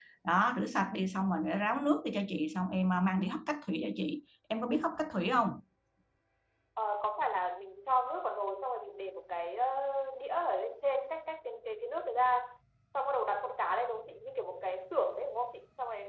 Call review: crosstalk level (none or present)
none